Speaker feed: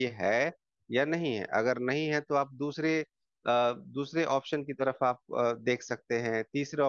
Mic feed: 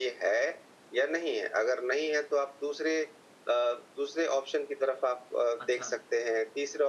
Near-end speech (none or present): present